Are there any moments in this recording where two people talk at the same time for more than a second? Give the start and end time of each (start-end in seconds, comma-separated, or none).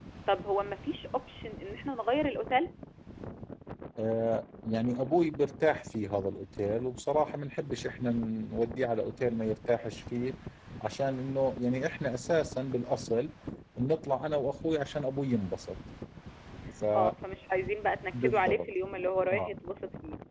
none